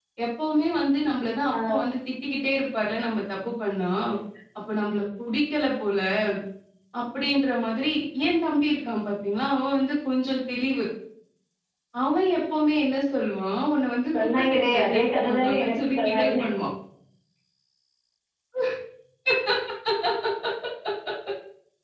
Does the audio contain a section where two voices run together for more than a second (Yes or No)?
Yes